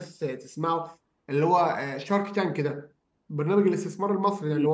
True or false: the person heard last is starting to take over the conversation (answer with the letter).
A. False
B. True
A